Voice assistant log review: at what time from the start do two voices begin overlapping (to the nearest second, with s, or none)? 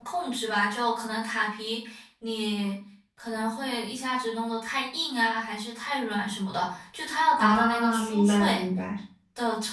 7 s